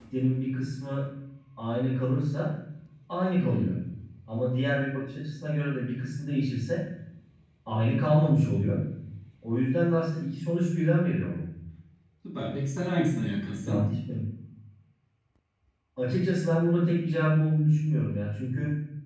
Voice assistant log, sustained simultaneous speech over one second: none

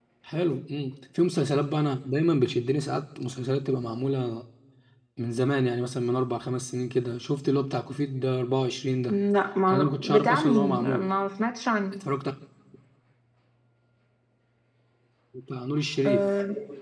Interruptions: present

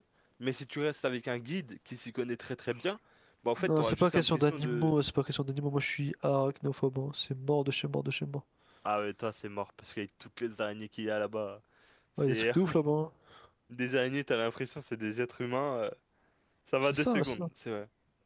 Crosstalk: present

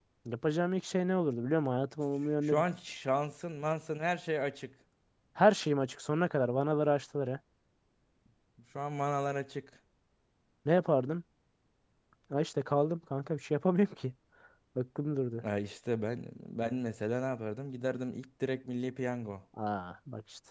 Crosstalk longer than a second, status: none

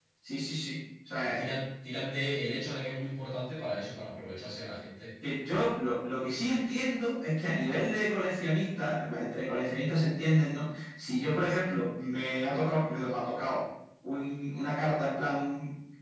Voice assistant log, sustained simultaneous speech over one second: none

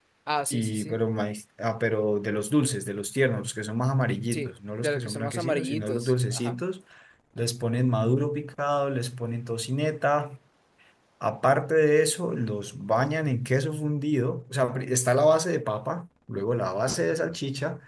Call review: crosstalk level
present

